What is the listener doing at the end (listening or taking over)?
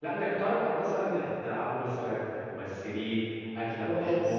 taking over